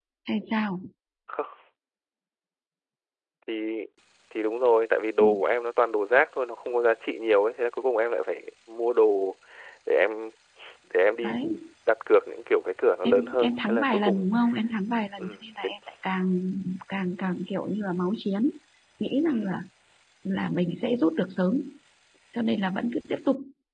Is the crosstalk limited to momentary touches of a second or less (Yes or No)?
No